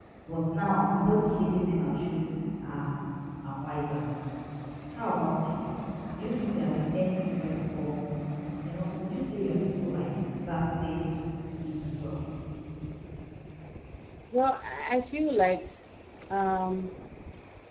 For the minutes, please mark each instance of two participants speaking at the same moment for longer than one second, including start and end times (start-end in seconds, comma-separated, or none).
none